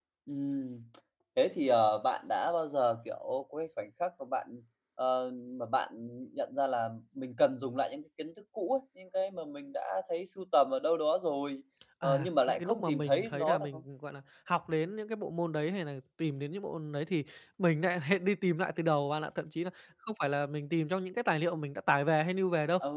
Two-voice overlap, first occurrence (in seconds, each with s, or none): 12.0 s